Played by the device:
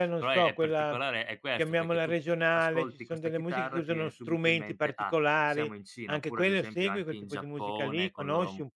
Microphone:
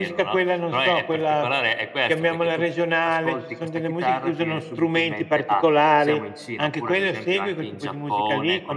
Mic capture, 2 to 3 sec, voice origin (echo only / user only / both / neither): echo only